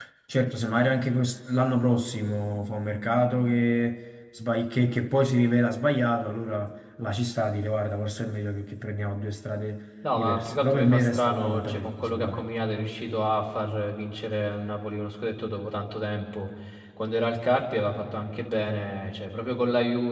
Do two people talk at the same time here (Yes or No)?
Yes